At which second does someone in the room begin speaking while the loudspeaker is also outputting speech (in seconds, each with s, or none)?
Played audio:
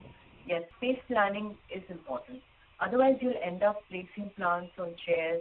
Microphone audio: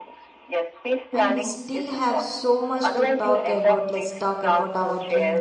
1.1 s